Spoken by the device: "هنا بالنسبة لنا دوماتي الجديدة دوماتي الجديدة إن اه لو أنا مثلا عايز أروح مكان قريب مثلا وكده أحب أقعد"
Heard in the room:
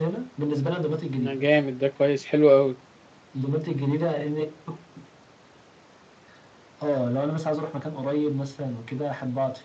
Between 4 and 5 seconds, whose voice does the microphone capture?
echo only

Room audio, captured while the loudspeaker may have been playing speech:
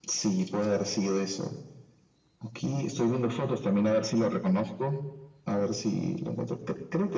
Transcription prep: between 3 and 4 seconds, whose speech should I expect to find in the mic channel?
echo only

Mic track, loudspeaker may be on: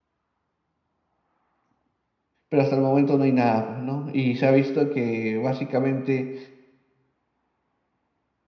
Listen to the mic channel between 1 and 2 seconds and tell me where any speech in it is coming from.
neither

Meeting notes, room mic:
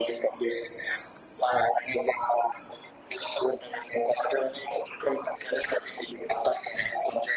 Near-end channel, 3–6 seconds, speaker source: echo only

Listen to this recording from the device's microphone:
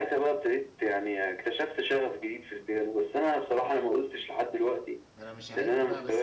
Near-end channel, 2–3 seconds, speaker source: echo only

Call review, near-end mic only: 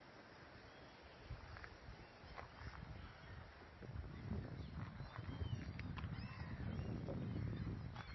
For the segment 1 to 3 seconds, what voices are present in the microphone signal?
neither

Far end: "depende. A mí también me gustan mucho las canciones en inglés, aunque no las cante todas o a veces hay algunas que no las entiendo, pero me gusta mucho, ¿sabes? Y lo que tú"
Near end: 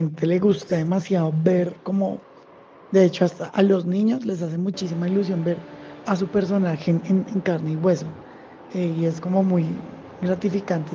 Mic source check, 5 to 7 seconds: user only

